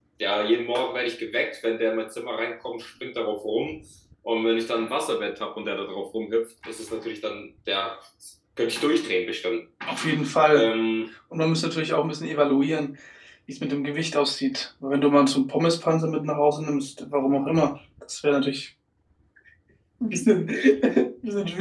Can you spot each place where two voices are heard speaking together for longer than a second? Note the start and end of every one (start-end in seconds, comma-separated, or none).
none